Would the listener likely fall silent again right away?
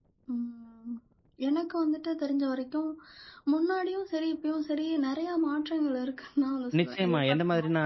No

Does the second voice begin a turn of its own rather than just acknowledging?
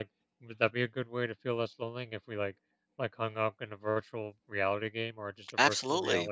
Yes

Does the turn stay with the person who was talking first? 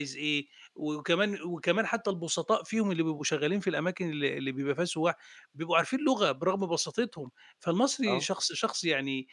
Yes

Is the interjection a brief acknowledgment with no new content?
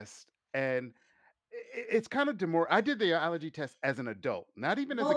No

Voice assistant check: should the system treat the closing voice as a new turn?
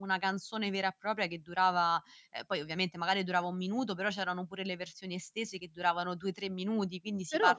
Yes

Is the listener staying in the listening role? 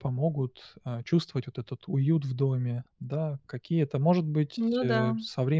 Yes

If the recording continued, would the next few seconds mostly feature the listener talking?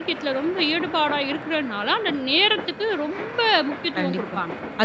Yes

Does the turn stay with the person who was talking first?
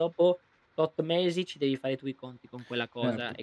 No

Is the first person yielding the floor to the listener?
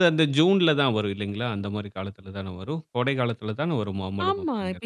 Yes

